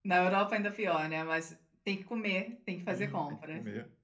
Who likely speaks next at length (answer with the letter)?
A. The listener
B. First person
A